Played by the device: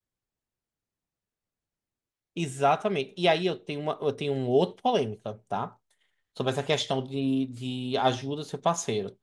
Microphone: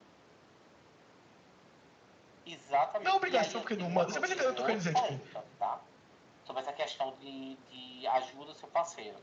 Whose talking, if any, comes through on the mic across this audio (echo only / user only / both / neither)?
both